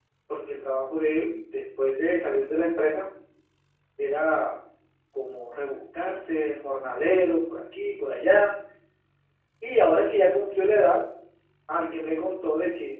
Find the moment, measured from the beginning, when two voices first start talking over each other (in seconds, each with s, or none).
none